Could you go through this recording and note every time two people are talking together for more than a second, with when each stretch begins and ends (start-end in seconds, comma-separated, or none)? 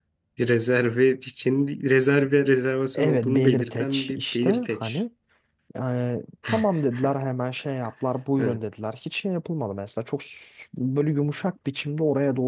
2.9-5.0